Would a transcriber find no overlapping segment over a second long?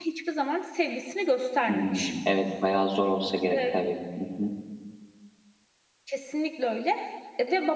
Yes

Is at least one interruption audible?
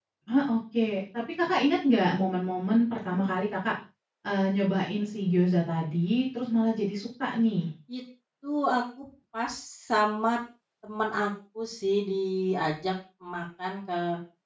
No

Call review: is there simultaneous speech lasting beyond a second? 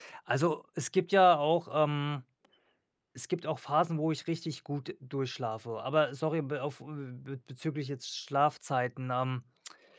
No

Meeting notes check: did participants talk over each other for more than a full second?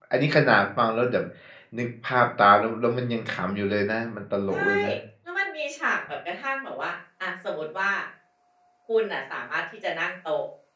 No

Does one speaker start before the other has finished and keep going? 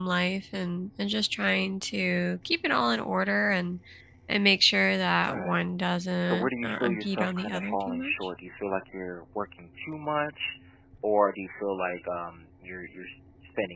Yes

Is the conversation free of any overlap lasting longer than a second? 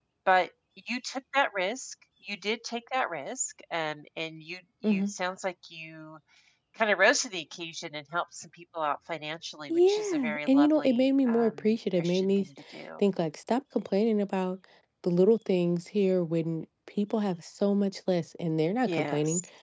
No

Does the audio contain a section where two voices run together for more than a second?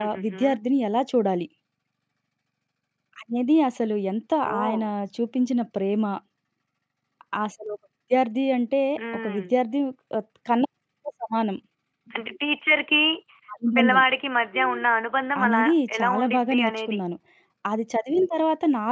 Yes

